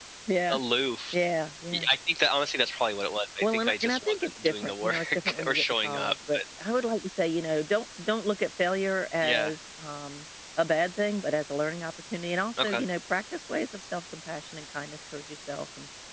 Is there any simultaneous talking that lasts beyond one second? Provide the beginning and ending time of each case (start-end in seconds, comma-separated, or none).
3.4-6.4